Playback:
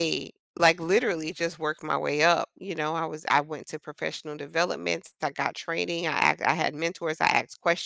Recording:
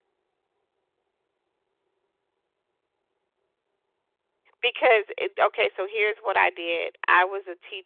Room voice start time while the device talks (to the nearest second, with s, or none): 5 s